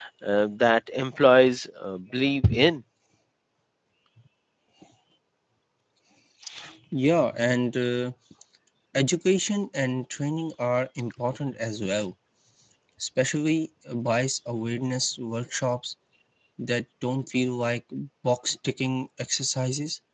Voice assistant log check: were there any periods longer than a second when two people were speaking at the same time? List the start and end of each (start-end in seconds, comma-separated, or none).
none